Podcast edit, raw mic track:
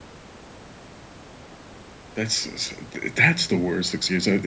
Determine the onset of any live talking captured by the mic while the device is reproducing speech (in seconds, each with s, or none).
2.1 s